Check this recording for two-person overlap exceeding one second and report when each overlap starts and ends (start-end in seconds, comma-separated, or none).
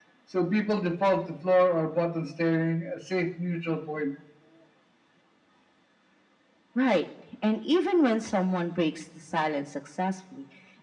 none